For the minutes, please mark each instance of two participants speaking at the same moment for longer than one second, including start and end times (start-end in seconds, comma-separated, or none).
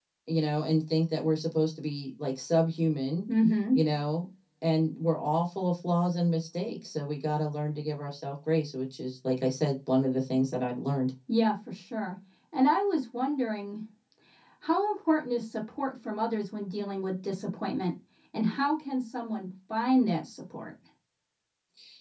none